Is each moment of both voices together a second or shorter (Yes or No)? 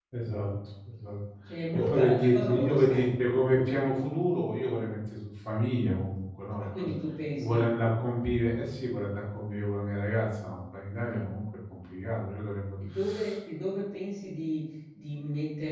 No